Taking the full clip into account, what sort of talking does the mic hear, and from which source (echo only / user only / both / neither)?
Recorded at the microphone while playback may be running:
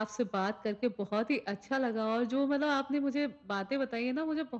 echo only